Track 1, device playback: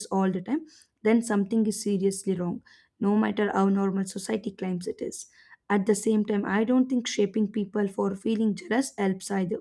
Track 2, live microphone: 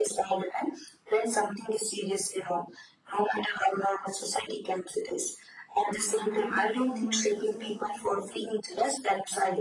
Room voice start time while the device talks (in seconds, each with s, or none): 5.9 s